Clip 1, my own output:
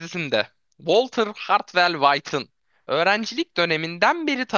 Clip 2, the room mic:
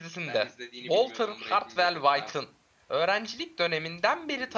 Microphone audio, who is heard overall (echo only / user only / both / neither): both